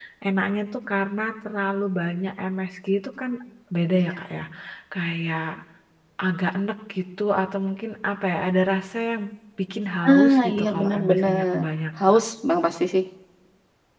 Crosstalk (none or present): present